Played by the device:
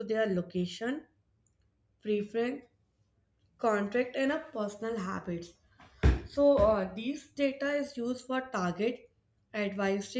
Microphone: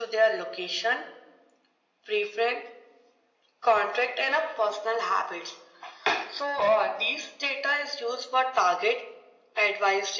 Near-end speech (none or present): none